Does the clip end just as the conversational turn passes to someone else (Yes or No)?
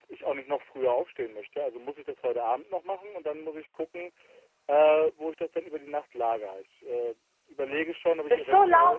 Yes